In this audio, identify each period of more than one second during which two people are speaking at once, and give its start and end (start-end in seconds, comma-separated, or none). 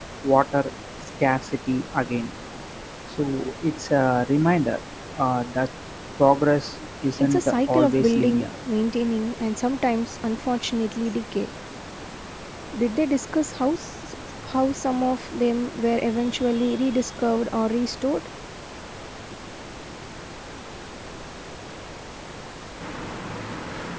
7.2-8.5